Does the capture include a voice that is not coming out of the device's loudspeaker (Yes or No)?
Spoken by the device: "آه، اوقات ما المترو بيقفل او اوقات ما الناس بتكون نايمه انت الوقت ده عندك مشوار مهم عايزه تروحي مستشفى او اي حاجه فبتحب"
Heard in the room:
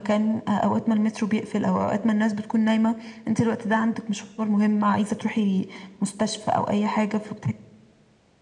No